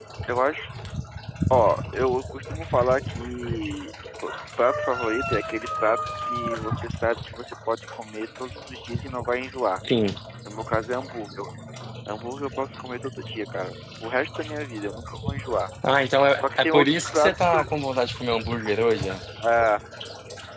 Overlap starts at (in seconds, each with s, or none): 16.4 s